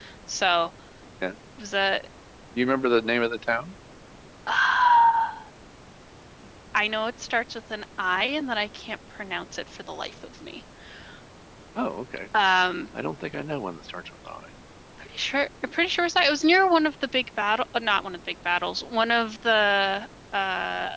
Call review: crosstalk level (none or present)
none